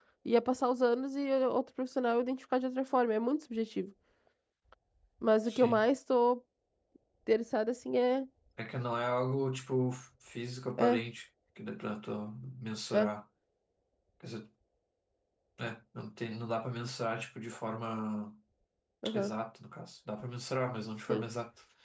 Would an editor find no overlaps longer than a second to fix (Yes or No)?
Yes